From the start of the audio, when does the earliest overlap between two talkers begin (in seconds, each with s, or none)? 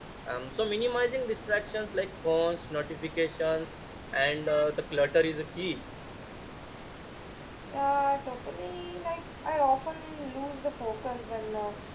none